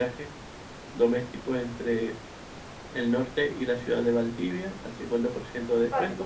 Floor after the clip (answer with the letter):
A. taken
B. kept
B